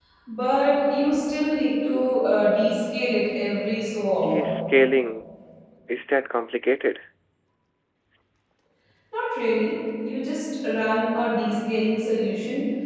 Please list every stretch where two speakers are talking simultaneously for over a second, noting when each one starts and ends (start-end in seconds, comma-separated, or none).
none